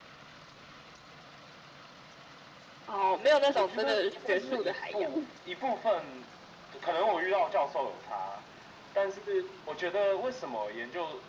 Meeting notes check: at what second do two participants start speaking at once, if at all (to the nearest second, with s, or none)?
4 s